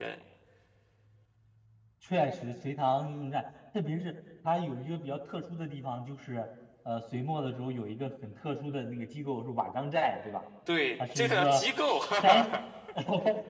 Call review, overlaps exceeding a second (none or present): present